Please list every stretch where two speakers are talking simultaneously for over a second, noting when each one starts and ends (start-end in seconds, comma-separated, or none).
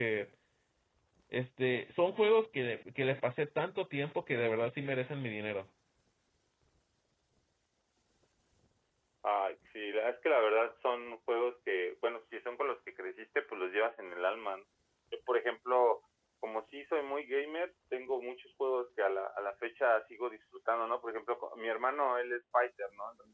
none